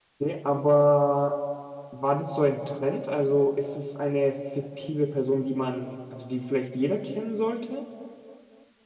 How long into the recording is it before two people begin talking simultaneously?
none

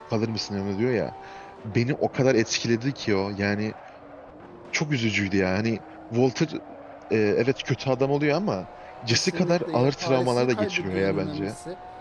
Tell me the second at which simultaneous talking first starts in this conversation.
9.1 s

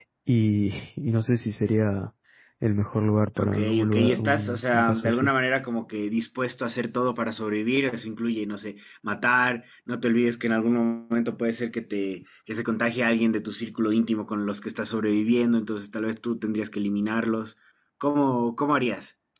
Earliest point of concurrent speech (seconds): 3.4 s

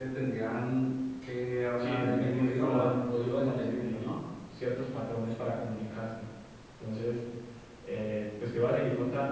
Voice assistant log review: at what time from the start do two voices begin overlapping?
1.8 s

